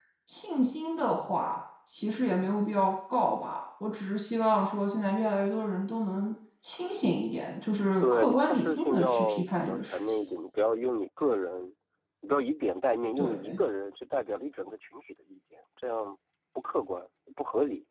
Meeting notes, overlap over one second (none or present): present